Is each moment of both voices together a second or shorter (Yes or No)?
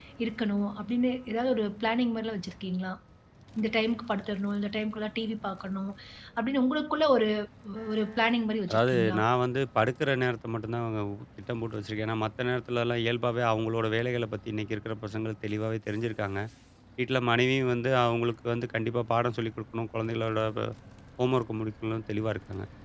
Yes